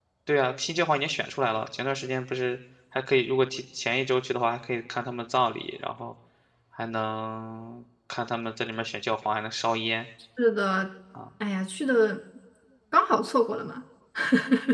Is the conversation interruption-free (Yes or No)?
Yes